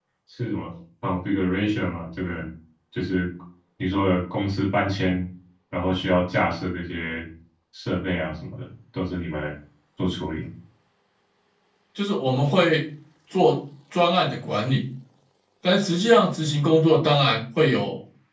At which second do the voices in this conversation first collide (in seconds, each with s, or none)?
none